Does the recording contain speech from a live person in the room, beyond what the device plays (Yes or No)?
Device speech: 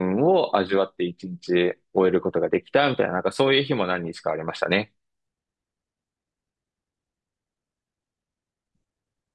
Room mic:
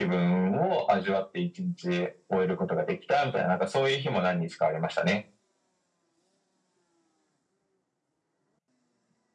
No